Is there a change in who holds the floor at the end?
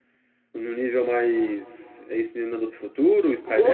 Yes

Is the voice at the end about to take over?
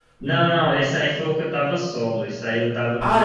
Yes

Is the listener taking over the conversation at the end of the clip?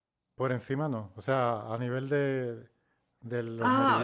Yes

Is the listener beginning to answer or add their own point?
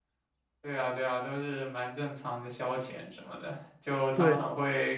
No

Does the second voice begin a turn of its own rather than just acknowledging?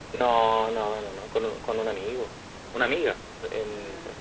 No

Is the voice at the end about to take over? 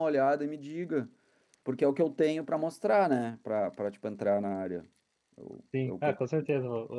Yes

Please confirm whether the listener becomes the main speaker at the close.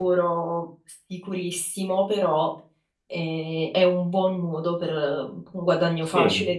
Yes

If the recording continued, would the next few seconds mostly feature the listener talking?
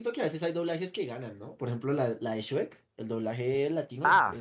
Yes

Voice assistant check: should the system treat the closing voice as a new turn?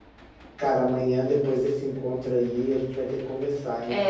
Yes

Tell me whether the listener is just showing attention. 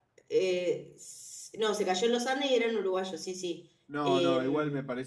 No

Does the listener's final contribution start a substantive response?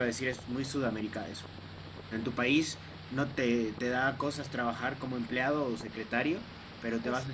No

